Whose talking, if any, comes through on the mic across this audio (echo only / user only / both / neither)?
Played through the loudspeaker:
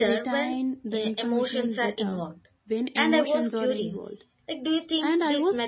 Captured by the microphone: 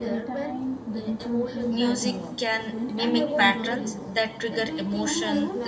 both